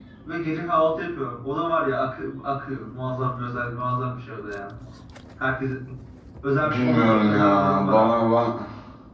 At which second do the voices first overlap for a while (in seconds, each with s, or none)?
6.6 s